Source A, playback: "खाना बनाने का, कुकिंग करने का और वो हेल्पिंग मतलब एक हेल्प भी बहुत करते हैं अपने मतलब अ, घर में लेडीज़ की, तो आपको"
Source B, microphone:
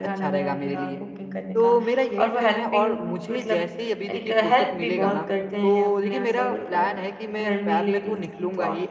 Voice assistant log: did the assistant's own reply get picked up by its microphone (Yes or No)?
Yes